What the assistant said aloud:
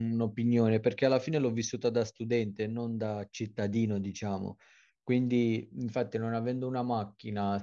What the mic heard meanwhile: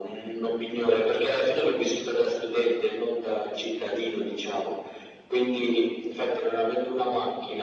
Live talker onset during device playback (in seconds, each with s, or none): none